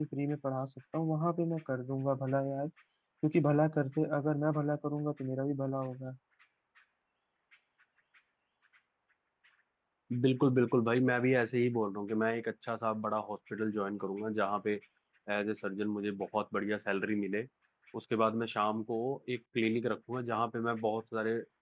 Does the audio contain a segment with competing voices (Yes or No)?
No